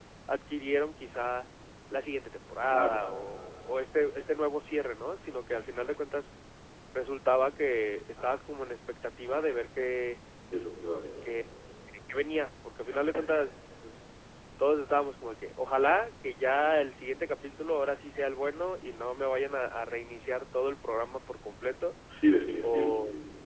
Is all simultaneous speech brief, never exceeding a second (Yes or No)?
Yes